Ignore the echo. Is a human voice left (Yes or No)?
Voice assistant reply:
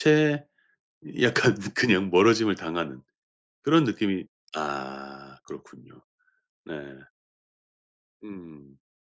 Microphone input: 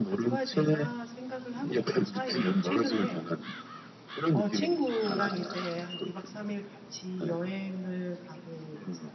Yes